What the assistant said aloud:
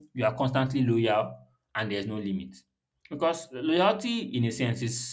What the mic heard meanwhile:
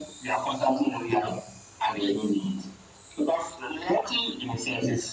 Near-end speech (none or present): none